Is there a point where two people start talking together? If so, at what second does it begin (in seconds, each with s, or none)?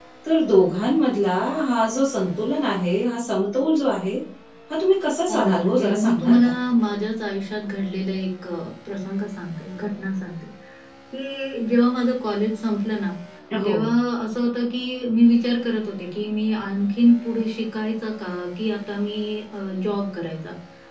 5.3 s